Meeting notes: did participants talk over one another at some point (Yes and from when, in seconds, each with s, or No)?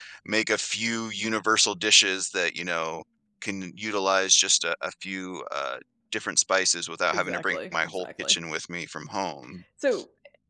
Yes, from 7.1 s